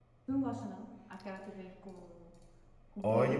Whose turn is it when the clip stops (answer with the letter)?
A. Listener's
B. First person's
A